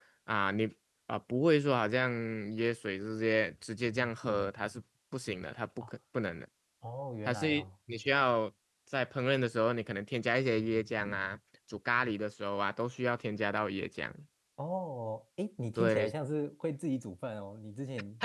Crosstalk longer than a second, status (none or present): none